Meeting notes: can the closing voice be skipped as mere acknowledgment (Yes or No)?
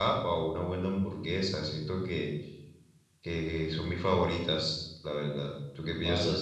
No